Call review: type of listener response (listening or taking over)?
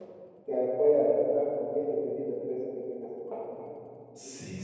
taking over